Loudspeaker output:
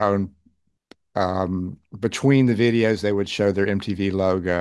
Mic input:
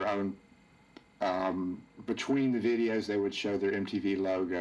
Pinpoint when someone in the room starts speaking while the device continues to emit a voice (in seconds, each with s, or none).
none